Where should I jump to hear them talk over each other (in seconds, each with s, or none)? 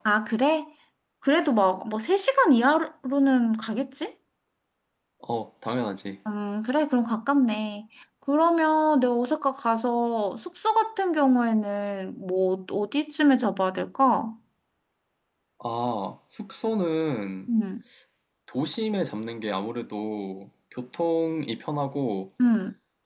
none